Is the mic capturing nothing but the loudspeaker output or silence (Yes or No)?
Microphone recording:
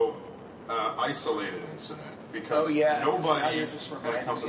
Yes